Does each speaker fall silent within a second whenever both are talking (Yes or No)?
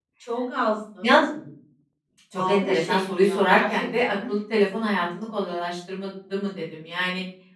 No